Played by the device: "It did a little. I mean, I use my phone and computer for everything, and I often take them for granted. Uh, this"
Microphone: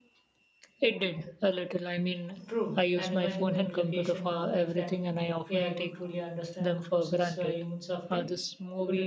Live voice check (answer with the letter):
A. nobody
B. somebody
B